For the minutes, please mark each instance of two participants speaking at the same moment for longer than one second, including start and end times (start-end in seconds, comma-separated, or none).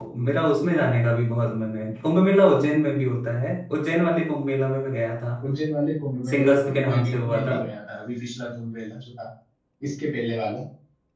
6.3-7.6